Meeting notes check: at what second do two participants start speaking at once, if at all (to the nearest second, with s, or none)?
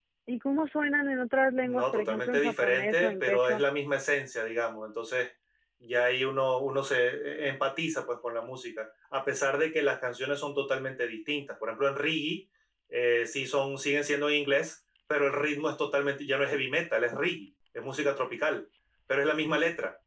2 s